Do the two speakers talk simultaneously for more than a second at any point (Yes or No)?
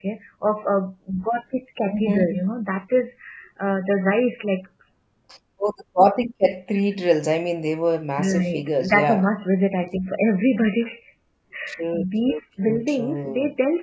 Yes